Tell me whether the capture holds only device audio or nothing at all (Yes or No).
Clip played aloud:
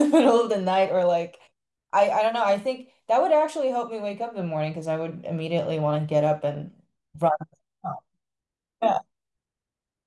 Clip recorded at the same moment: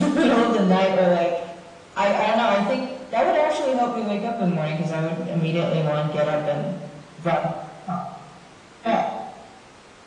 Yes